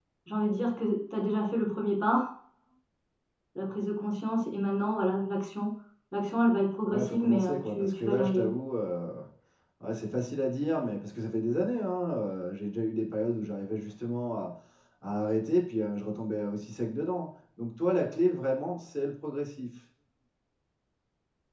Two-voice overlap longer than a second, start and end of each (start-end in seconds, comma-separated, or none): 6.9-8.5